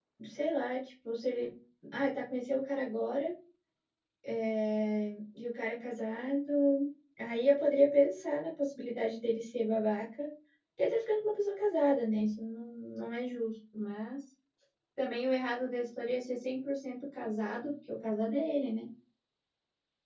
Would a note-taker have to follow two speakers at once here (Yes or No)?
No